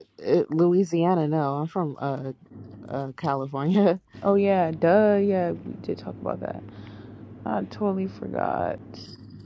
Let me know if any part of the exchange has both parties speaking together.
No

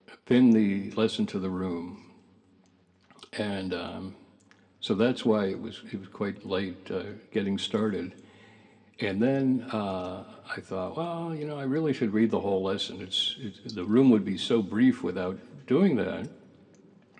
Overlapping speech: No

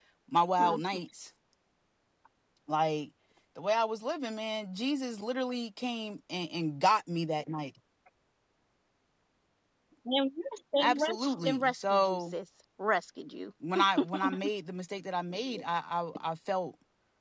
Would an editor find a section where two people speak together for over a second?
Yes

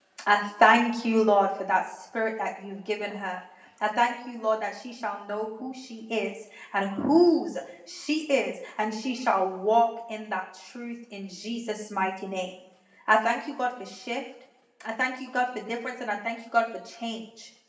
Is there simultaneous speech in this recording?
No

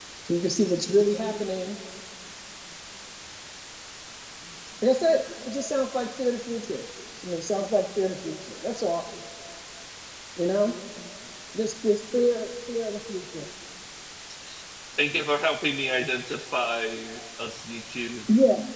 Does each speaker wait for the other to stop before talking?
Yes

